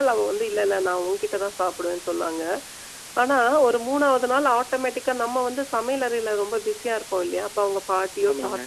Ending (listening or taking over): listening